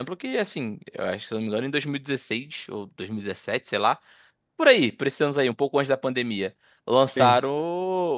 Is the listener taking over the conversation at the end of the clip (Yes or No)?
No